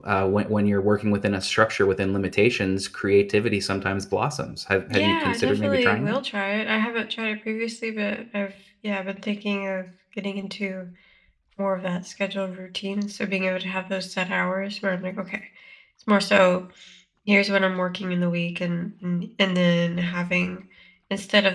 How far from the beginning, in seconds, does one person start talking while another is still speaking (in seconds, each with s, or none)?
4.9 s